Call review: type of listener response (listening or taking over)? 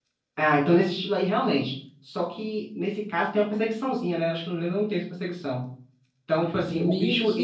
taking over